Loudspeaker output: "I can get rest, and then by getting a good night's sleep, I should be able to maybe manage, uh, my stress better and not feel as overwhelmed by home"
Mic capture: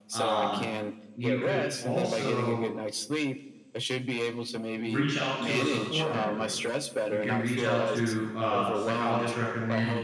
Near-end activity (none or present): present